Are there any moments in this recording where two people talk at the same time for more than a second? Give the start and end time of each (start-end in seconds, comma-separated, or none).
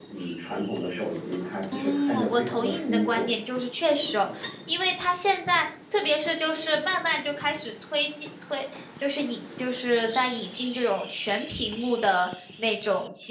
1.7-3.3